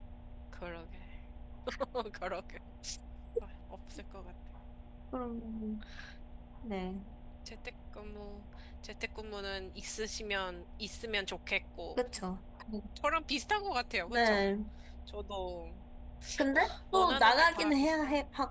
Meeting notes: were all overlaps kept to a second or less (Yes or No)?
No